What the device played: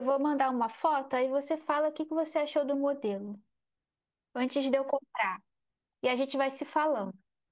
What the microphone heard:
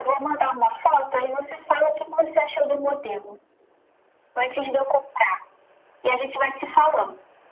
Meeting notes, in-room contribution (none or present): none